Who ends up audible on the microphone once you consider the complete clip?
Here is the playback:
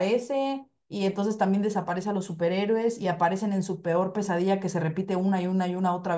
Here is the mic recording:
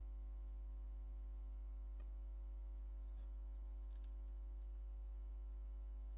neither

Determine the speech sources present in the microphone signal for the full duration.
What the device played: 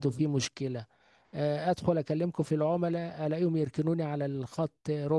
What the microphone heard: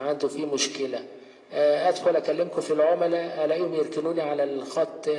echo only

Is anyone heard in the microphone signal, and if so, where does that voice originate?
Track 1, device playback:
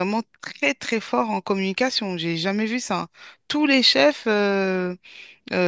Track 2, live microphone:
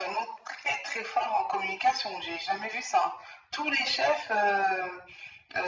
echo only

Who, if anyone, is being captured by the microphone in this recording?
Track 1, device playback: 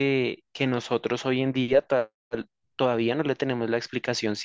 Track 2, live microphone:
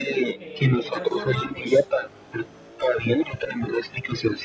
both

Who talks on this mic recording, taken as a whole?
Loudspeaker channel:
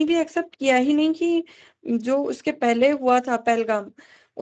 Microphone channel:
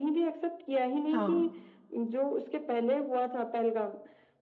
both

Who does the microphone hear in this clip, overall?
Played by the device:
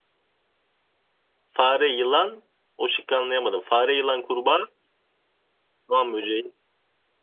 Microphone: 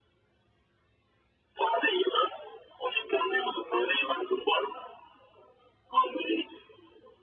echo only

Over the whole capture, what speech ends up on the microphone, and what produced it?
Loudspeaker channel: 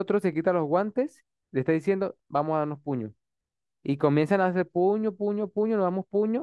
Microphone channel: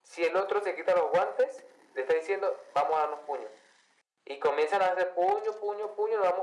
echo only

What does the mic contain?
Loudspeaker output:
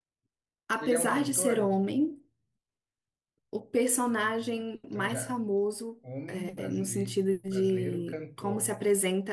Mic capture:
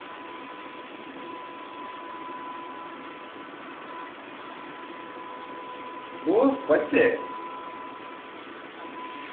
user only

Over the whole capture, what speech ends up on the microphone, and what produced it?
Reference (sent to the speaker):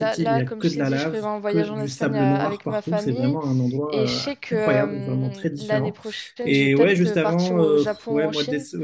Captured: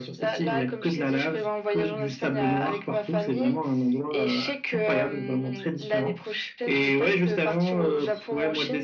echo only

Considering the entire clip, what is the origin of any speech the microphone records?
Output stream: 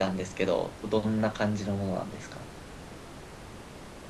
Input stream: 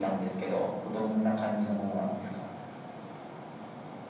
echo only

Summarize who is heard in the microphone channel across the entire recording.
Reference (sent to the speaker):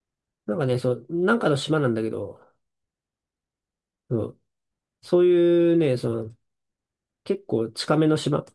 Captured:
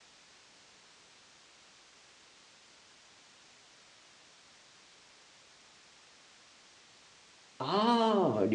user only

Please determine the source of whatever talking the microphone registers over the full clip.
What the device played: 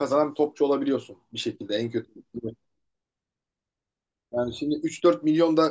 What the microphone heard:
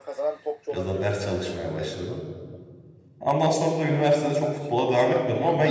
both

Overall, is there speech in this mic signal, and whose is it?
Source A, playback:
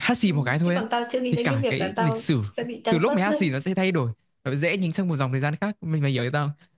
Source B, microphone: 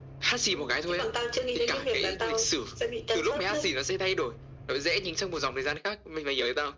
echo only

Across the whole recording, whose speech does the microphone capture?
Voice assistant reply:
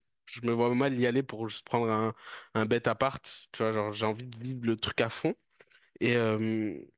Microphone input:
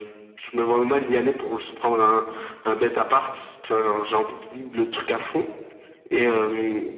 echo only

